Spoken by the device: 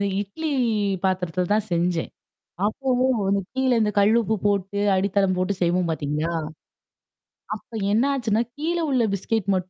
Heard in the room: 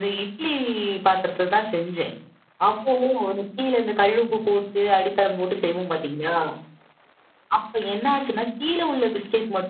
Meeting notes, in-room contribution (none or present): none